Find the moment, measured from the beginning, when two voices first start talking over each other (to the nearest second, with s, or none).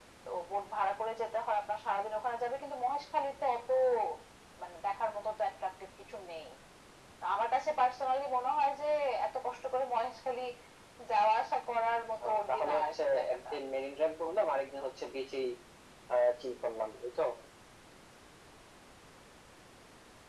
12 s